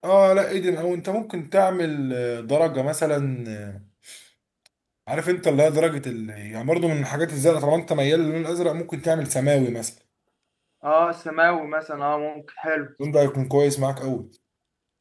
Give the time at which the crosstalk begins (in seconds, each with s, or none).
none